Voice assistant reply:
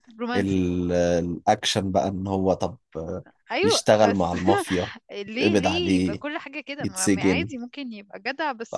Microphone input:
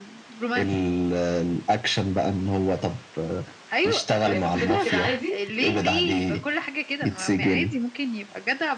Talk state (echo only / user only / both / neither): both